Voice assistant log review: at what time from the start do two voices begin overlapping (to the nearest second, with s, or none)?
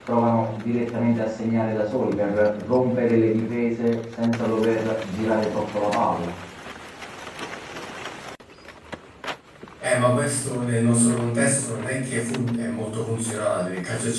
none